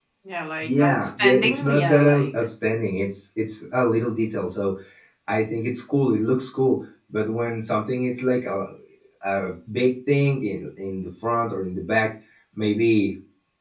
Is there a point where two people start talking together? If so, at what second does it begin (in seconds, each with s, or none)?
0.6 s